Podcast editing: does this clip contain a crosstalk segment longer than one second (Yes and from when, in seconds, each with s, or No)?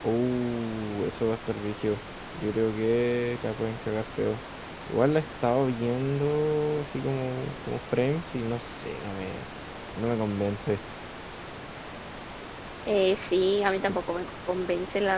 No